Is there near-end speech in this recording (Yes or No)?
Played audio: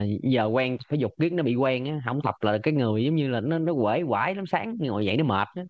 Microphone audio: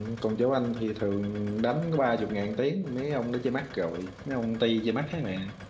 Yes